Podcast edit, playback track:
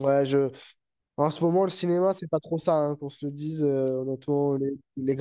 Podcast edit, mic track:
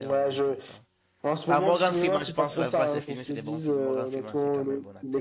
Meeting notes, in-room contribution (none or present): present